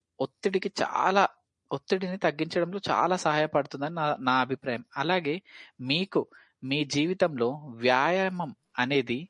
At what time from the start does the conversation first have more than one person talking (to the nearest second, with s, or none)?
none